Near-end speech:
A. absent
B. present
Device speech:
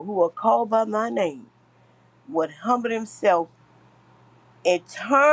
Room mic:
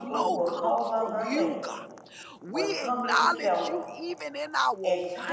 B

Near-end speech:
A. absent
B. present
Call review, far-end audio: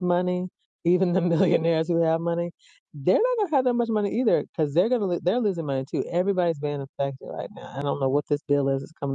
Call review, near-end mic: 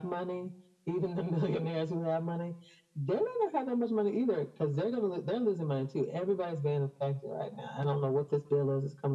A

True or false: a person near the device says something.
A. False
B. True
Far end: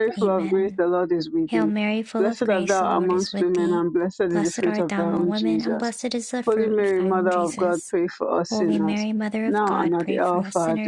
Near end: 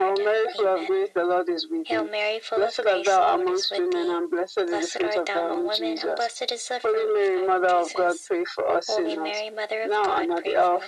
A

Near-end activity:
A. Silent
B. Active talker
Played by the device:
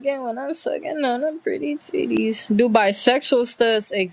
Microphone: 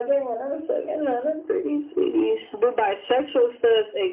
A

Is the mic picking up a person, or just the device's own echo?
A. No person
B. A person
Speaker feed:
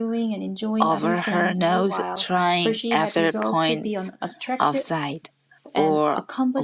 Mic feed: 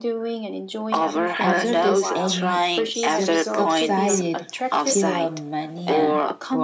B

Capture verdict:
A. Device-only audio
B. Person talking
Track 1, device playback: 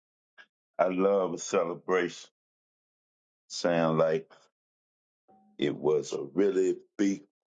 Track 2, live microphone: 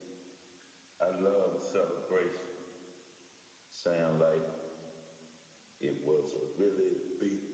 A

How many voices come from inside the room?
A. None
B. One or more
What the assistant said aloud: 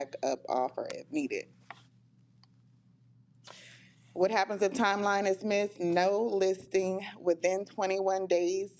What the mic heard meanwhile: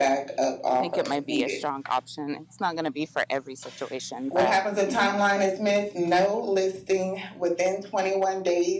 B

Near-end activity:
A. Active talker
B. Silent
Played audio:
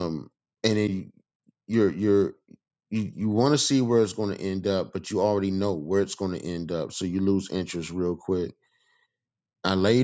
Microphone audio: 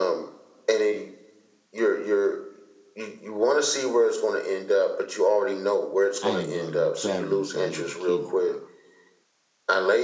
A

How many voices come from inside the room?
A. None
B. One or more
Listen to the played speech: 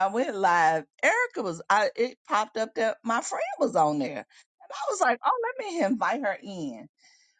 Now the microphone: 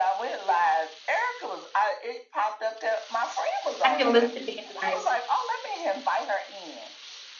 B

